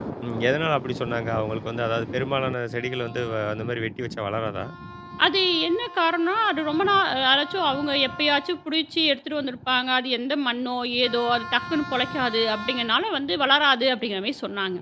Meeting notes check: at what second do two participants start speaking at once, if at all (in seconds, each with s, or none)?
none